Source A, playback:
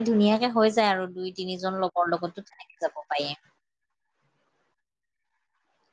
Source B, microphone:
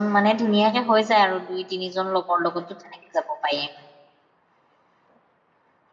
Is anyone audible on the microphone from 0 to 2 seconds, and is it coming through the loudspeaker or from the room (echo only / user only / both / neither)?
echo only